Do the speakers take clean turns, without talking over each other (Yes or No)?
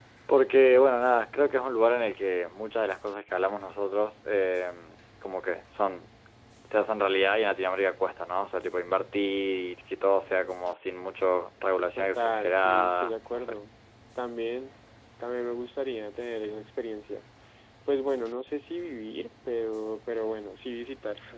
No